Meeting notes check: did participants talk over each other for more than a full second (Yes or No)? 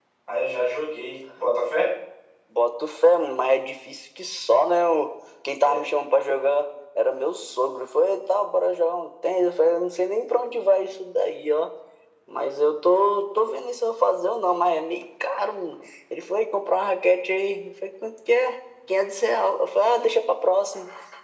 No